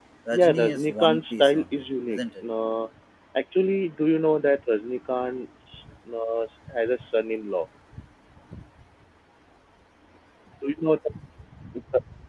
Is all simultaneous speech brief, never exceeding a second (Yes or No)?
No